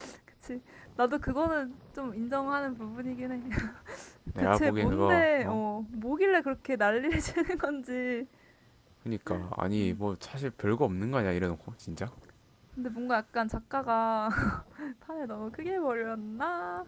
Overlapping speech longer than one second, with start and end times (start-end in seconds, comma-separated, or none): 4.4-5.6